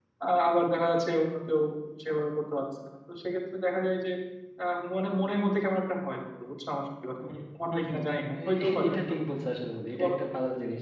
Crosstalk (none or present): present